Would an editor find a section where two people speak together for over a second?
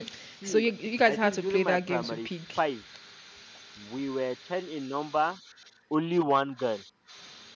Yes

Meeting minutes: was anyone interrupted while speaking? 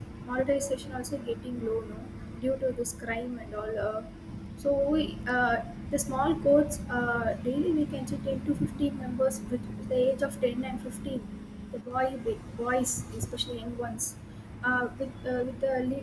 No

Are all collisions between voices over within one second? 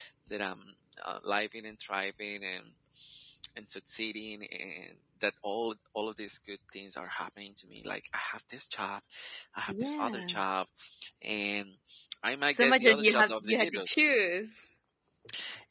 No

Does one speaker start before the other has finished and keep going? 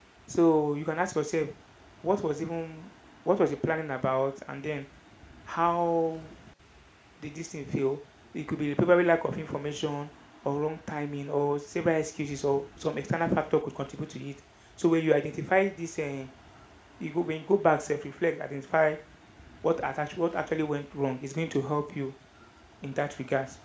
No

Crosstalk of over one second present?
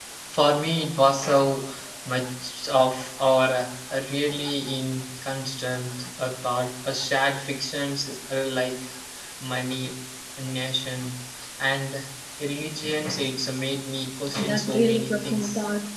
Yes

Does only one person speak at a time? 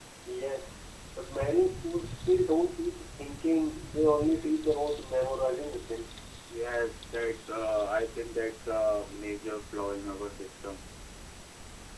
Yes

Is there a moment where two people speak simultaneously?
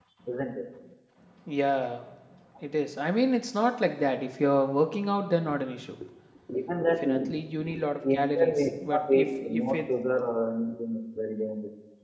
Yes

